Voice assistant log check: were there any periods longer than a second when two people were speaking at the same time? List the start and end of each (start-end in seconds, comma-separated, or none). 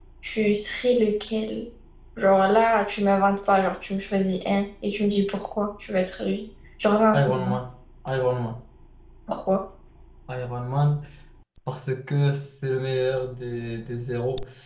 none